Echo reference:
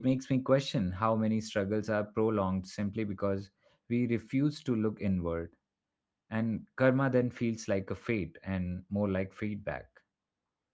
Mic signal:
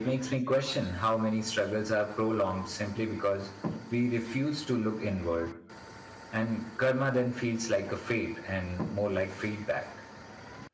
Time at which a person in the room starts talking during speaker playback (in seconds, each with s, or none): none